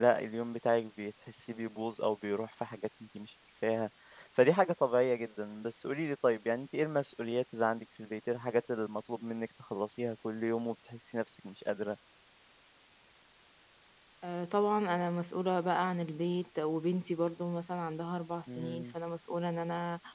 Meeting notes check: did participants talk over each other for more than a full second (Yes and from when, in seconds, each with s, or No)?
No